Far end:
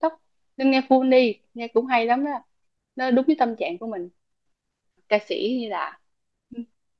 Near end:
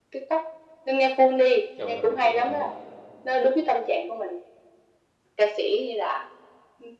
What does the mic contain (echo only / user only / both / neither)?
both